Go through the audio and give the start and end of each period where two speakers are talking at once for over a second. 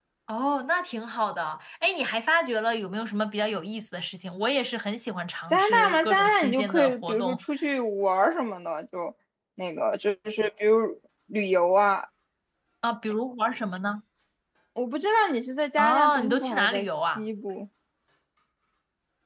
5.5-7.4, 15.8-17.2

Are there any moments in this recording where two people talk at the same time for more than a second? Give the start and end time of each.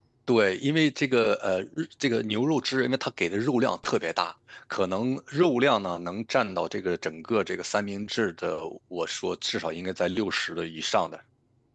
none

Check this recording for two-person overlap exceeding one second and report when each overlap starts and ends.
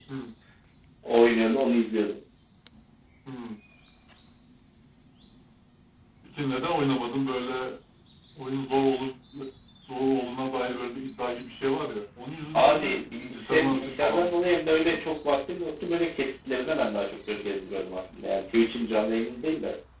12.5-14.4

